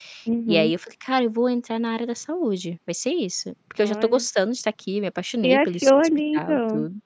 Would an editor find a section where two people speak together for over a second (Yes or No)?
Yes